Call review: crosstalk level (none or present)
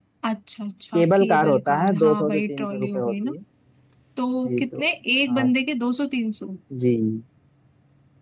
present